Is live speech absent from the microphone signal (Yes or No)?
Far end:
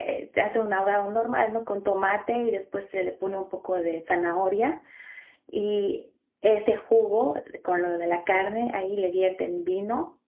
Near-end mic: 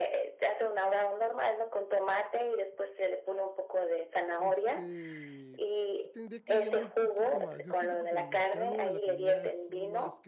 No